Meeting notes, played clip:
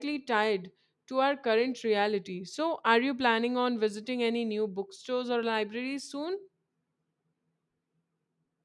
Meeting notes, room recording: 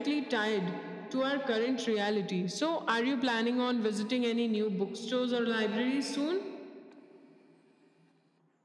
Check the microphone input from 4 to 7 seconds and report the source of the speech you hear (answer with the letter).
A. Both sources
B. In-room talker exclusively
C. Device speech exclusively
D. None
C